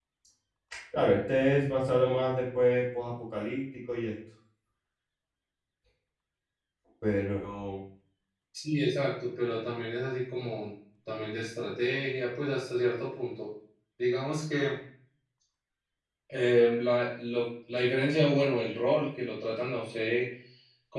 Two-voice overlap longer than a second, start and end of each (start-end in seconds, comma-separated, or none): none